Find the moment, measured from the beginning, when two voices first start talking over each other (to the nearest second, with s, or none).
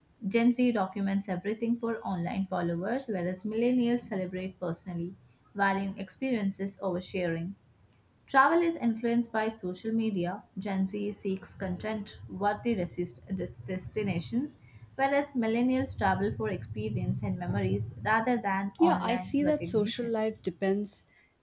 19 s